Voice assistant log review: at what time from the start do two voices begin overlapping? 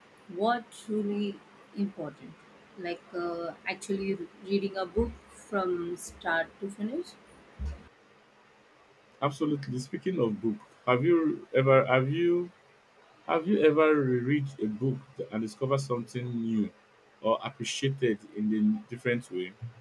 none

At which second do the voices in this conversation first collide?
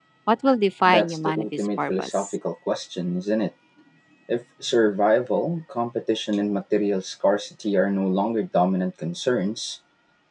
0.8 s

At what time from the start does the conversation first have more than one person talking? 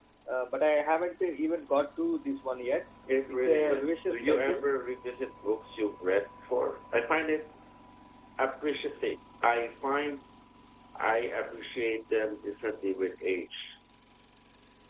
3.3 s

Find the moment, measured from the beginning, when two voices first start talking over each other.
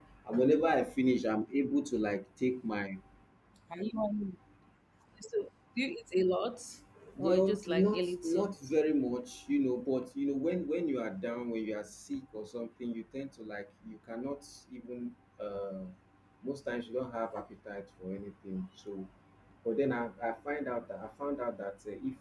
7.2 s

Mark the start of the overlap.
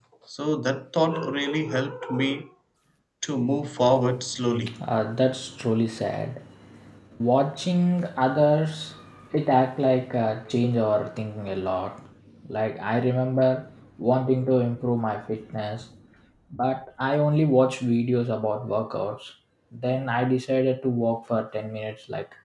none

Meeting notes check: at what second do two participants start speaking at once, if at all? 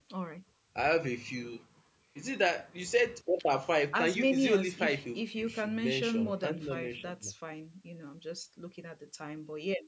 3.9 s

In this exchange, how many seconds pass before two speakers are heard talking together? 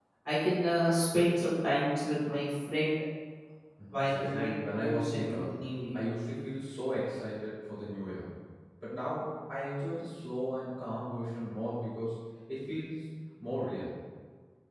4.1 s

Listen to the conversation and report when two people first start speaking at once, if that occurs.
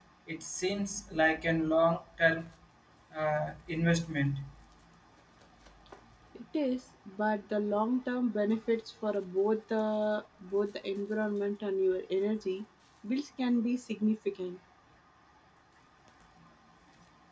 none

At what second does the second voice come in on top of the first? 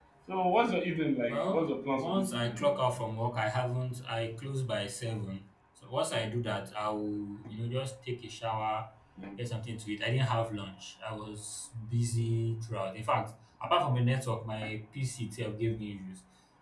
1.3 s

